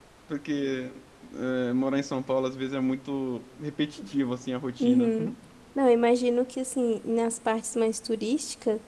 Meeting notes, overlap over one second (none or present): none